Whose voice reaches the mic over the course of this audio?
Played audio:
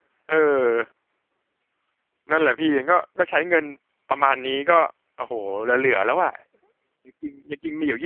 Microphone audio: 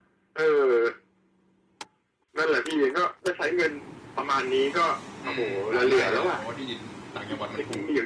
both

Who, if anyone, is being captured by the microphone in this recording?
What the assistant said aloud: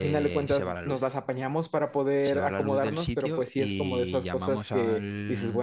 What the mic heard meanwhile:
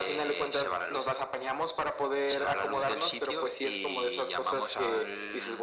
echo only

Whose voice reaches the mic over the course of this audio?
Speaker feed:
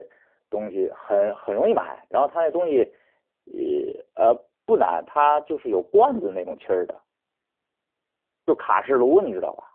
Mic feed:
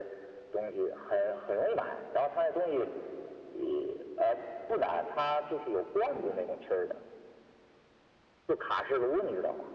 echo only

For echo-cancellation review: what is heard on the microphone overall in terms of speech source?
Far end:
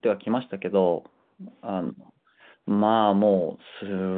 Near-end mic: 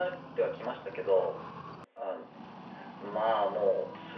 echo only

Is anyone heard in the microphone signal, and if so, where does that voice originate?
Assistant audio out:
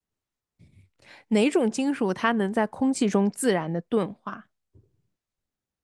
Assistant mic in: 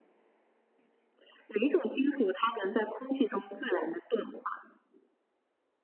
echo only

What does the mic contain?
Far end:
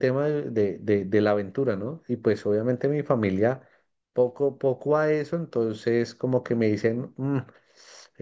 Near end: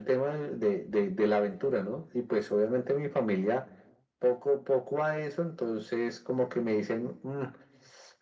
echo only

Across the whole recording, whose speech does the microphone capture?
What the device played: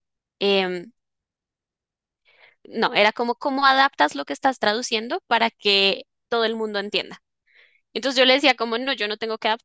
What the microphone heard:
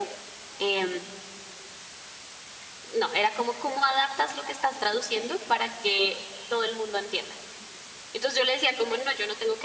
echo only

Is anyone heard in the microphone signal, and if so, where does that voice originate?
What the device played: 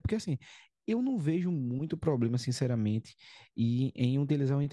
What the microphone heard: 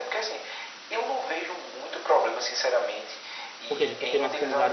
both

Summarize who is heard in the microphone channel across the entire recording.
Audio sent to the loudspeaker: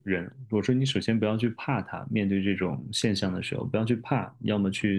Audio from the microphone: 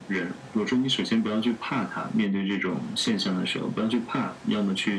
echo only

